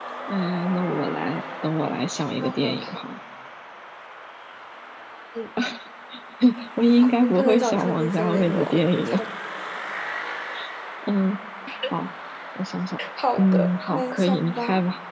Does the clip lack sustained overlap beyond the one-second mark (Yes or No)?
No